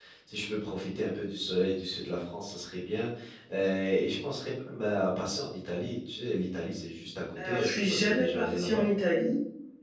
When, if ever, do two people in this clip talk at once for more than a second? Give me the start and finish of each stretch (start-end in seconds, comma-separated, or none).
7.4-8.8